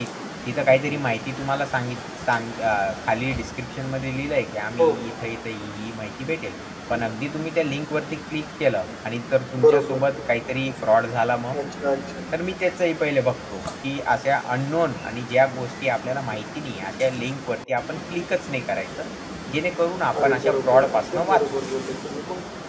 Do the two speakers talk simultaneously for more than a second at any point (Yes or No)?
Yes